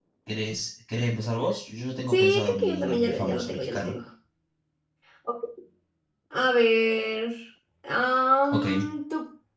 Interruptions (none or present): present